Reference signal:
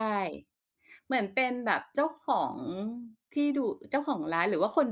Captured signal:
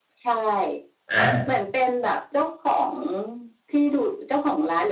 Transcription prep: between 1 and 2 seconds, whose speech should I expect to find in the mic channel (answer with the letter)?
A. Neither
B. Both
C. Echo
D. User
B